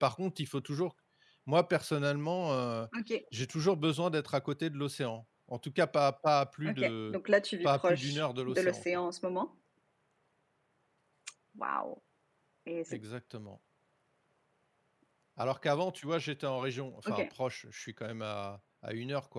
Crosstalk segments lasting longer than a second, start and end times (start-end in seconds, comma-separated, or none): 7.6-8.8